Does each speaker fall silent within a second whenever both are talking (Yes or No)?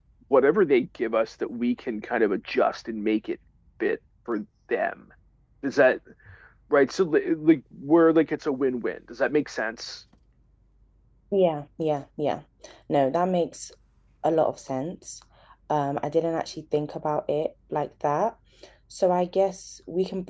Yes